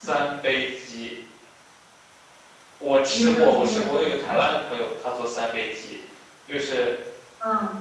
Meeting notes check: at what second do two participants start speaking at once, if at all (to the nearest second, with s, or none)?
3 s